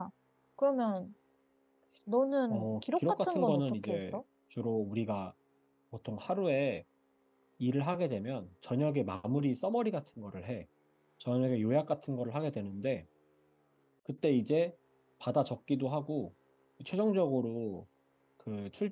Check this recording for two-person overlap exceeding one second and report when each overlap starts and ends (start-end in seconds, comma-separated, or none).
2.5-4.2